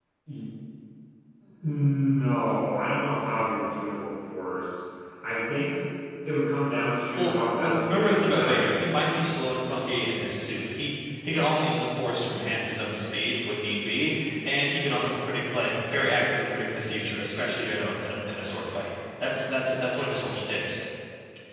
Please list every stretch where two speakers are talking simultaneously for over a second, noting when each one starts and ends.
7.2-9.8

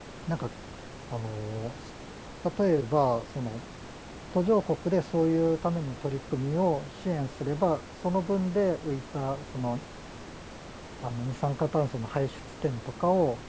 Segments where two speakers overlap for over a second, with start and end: none

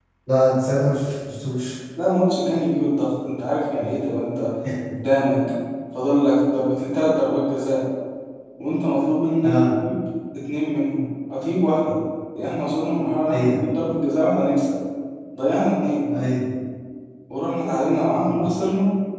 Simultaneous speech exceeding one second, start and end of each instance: none

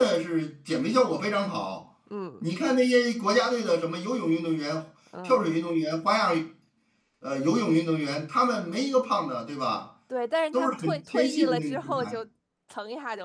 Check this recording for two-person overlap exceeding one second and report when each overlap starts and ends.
10.5-12.1

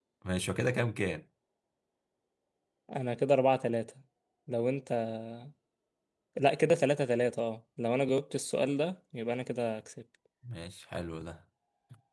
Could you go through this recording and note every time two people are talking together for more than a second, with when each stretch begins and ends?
none

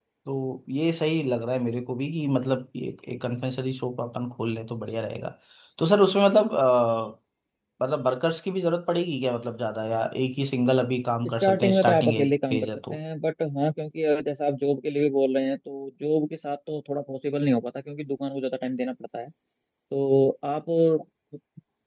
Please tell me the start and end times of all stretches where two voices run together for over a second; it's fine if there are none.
11.4-13.0

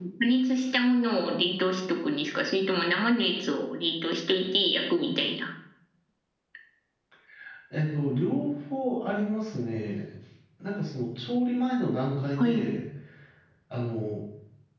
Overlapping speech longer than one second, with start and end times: none

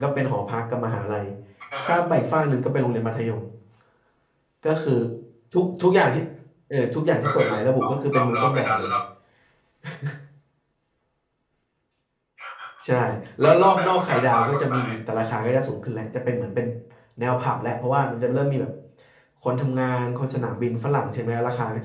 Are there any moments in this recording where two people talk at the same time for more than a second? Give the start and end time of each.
7.2-8.9, 13.4-14.9

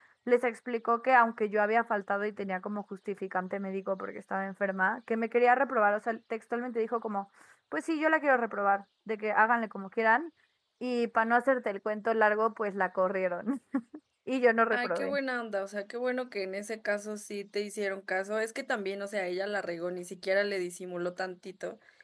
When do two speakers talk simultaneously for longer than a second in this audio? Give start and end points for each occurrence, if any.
none

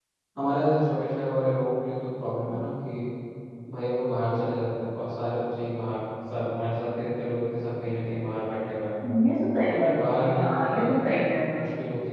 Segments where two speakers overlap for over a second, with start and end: 9.7-11.0

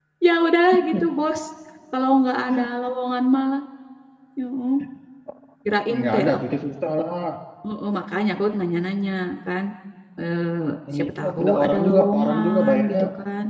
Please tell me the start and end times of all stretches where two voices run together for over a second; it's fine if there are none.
11.0-13.0

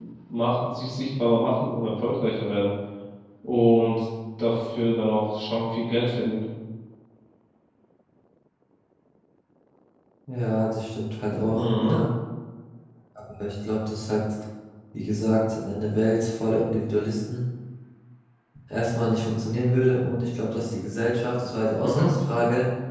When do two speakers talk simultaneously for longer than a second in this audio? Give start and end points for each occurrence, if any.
none

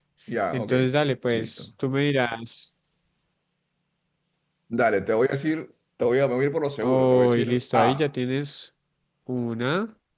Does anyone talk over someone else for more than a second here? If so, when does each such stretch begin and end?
6.8-8.1

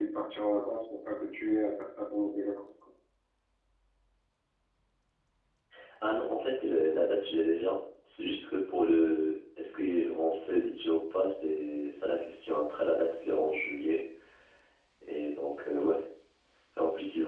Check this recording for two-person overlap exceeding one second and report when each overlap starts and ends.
none

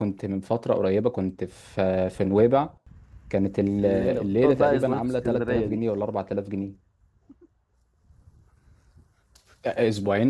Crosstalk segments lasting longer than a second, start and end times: 3.8-5.8

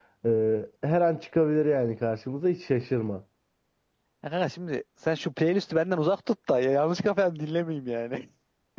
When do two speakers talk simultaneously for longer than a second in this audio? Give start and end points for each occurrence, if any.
none

